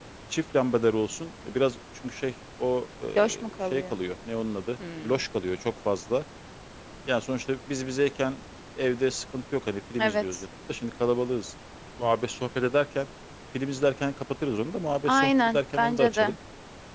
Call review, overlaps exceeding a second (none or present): present